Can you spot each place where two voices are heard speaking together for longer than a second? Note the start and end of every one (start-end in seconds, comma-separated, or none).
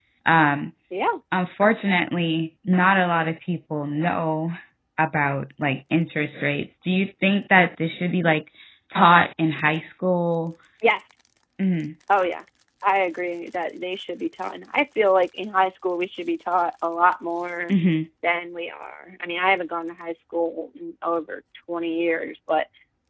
none